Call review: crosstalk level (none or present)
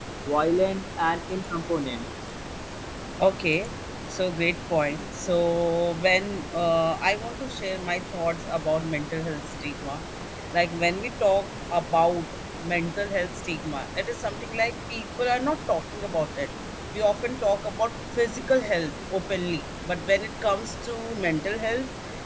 none